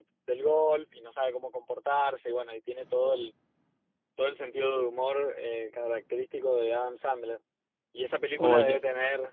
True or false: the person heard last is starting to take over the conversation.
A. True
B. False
B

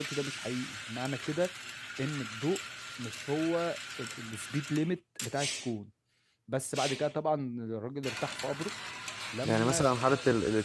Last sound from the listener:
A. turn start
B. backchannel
A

